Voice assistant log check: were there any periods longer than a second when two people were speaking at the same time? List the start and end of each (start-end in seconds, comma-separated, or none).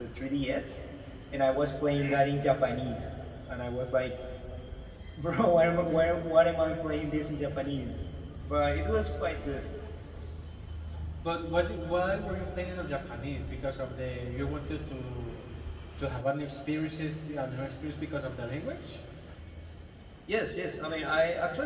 none